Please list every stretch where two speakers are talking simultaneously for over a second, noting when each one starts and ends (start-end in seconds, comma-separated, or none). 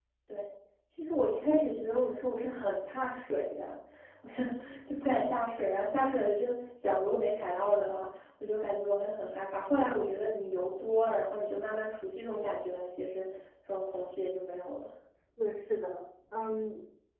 none